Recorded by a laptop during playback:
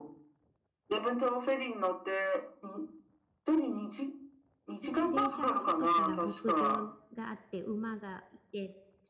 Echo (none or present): present